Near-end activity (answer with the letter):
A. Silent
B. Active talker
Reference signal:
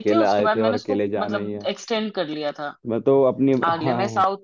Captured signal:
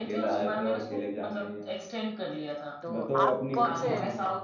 B